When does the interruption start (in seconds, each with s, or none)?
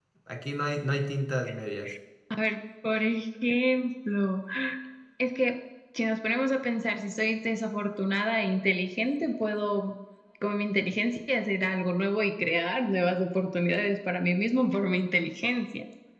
none